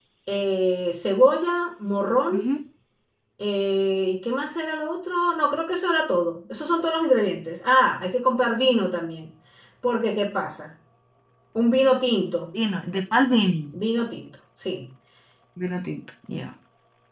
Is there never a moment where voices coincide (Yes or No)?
Yes